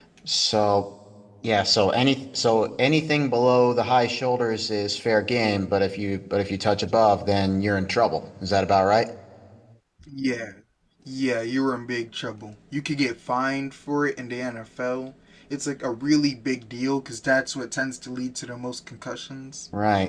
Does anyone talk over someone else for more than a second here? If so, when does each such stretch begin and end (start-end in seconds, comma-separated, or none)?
none